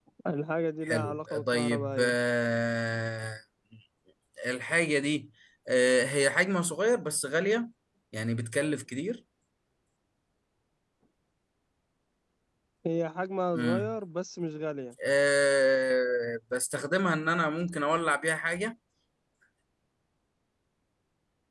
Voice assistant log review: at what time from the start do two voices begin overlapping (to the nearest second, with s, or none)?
1 s